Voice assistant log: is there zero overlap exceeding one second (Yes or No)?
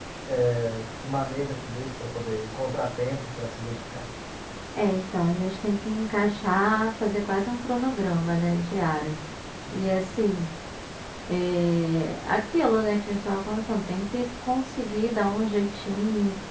Yes